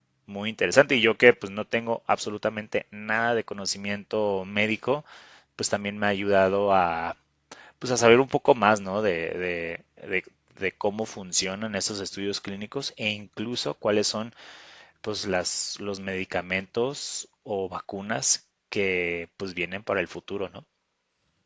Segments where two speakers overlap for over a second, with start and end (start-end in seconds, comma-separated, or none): none